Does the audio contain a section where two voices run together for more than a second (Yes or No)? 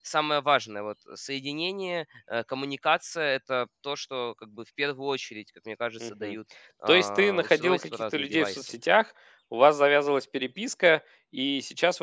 Yes